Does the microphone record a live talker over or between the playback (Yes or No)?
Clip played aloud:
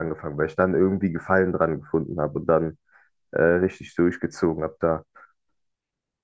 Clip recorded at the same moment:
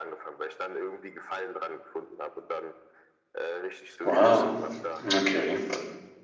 Yes